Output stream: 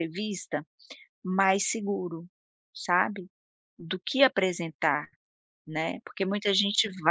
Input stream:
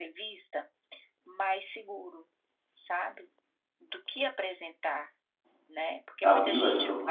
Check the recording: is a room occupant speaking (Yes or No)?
Yes